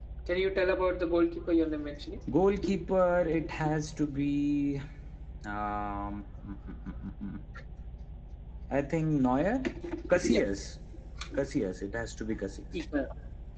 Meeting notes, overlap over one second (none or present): none